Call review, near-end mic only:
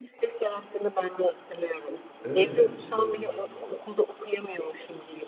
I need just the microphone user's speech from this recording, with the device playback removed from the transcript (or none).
Evet. Eee